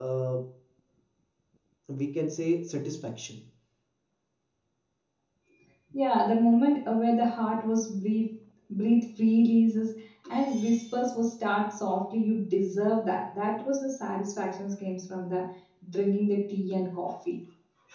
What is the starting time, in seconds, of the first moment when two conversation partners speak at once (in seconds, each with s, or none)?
none